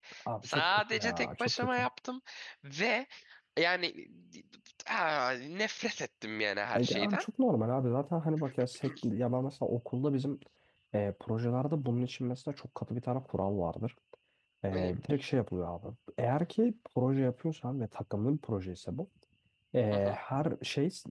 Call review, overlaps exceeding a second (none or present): present